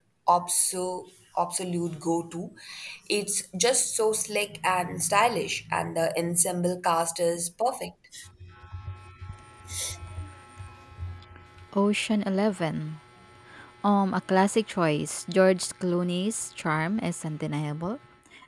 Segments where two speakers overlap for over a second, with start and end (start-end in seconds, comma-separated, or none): none